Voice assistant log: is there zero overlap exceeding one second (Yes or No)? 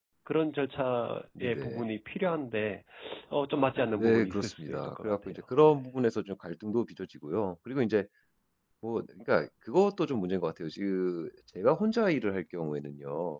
No